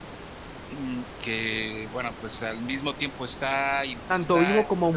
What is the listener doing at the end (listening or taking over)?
taking over